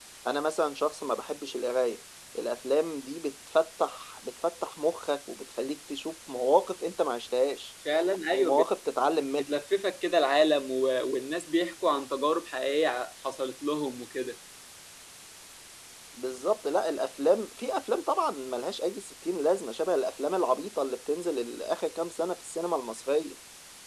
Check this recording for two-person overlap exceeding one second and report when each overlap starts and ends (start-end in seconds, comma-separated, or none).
none